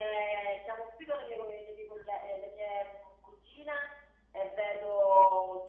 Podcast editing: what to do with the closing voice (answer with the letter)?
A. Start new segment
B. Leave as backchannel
B